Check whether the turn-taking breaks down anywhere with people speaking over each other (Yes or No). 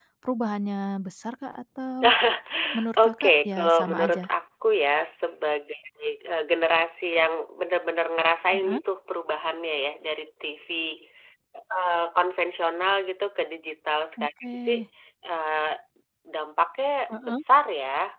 Yes